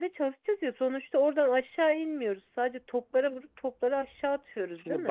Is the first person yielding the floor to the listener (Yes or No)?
Yes